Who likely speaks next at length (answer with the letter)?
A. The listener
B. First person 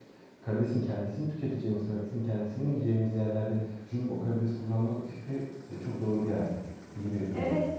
A